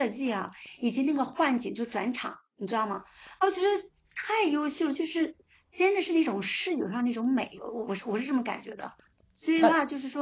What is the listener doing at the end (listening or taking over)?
listening